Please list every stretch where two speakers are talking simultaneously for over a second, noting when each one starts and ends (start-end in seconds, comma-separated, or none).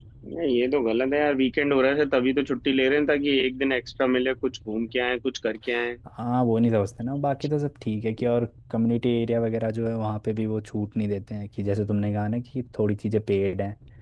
none